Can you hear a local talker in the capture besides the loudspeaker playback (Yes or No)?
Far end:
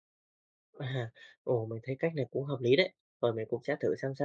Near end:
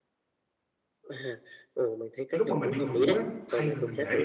Yes